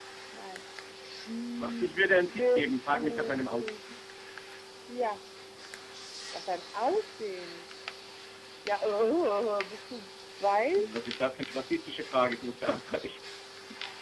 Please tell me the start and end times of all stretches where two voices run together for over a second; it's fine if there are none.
2.4-3.7

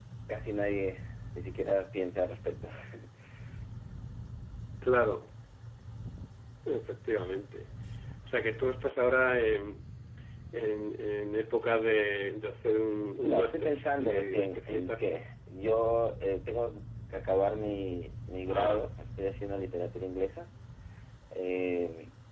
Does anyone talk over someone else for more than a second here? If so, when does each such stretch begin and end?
13.2-15.2

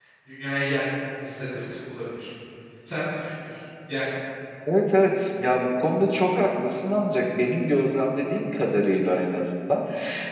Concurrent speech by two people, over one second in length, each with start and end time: none

